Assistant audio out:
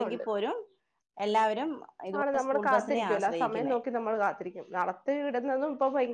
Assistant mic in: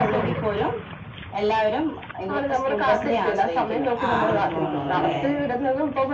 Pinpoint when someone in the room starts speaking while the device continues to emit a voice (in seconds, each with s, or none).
4.0 s